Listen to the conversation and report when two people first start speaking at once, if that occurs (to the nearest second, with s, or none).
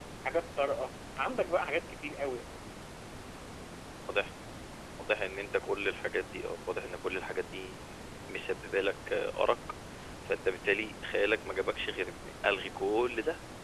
none